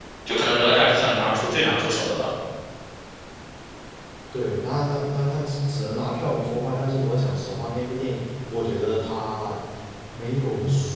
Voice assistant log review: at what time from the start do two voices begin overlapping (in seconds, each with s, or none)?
none